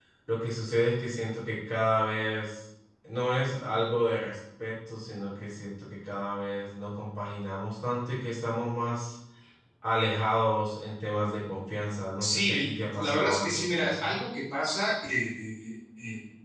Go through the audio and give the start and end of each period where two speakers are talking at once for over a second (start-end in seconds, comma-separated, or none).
12.2-14.2